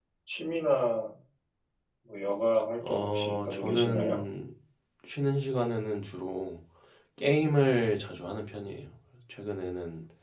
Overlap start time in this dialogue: 2.9 s

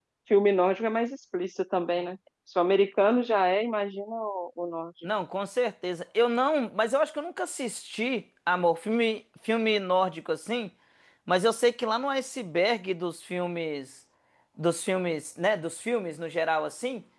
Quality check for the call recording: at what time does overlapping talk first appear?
none

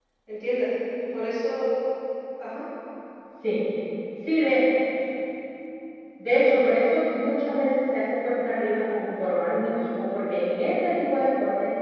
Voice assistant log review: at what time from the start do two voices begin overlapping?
none

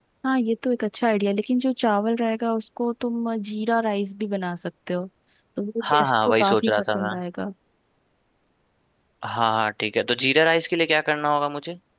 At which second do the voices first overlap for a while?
5.9 s

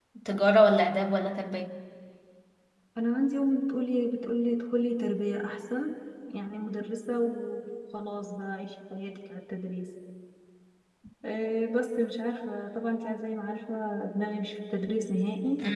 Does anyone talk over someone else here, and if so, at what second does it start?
none

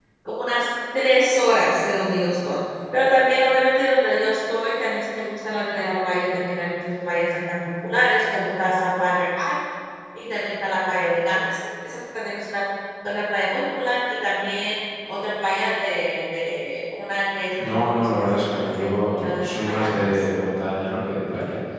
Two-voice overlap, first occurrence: 17.6 s

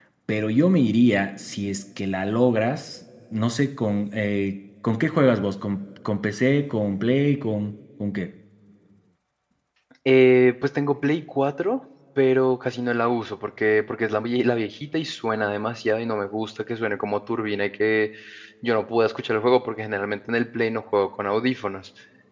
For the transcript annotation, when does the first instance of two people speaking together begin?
none

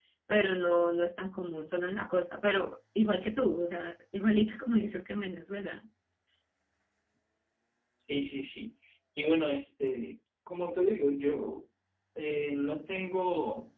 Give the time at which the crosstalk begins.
none

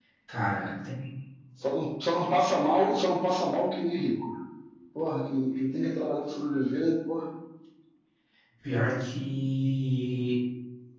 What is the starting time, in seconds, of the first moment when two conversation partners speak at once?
none

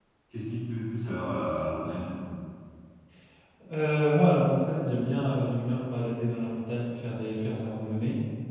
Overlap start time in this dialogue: none

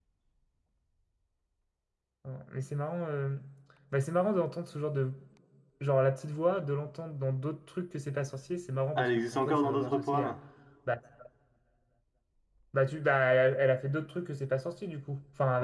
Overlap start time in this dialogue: 9.0 s

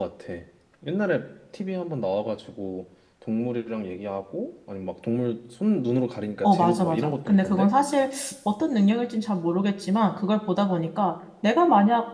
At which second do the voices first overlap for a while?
6.4 s

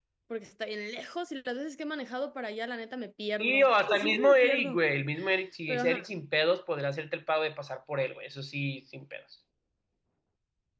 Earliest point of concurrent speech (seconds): 3.4 s

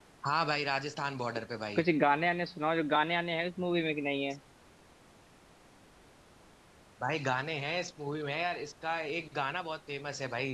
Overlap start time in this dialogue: none

